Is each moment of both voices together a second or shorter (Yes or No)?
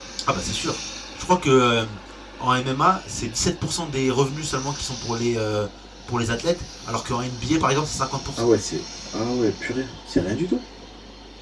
Yes